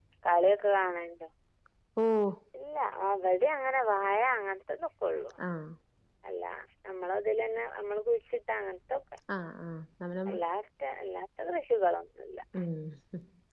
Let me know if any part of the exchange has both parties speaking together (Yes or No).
No